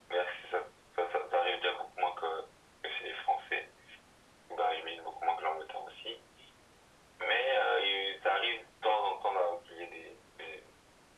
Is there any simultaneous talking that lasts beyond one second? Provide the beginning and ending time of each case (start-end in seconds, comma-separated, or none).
none